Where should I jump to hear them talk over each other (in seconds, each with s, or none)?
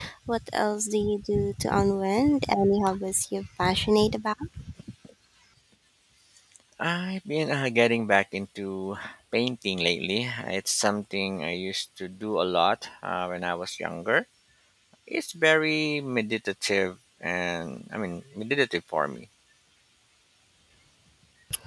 none